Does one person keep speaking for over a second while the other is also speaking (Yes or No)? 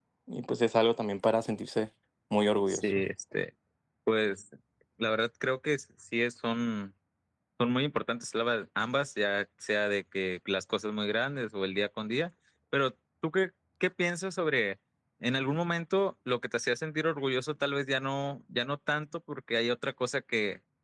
No